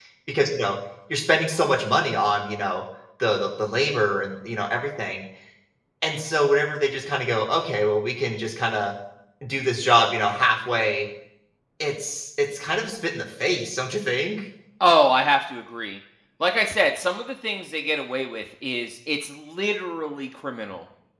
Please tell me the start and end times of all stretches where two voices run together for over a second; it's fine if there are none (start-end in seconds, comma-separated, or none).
none